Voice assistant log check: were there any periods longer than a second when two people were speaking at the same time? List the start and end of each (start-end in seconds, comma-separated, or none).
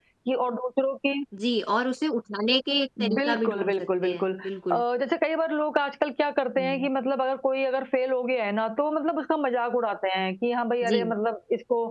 3.0-4.8